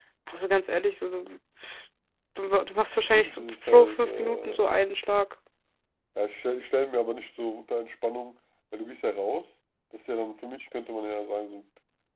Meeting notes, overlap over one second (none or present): present